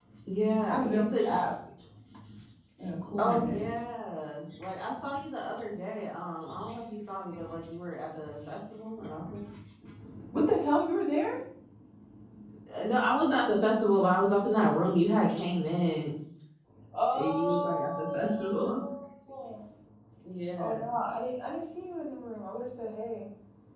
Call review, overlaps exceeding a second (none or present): present